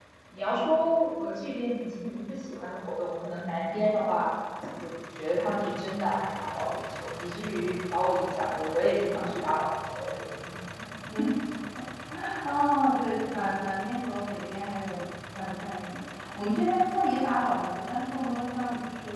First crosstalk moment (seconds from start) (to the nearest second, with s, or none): none